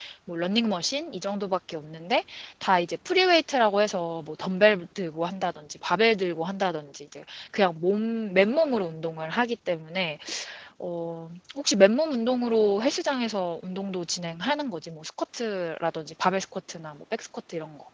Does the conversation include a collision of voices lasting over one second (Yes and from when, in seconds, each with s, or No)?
No